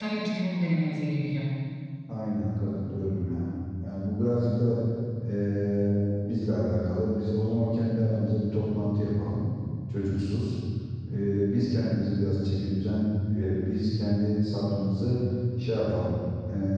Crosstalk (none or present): none